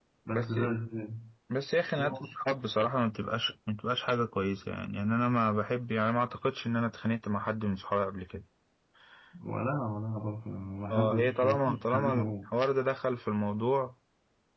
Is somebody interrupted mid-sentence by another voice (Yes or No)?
Yes